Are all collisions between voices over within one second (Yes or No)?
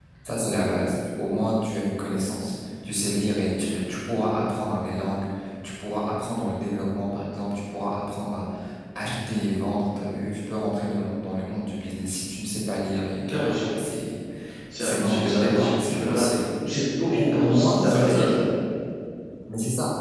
No